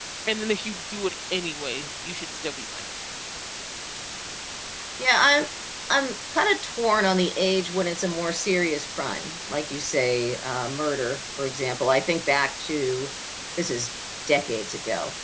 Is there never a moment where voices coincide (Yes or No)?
Yes